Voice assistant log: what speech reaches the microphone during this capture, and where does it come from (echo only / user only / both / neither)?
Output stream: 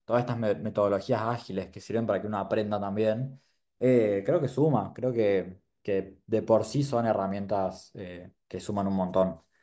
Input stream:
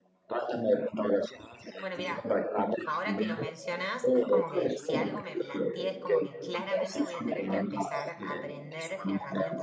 both